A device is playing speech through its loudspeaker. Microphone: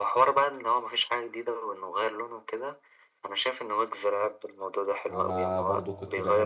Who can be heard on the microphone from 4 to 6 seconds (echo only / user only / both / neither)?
both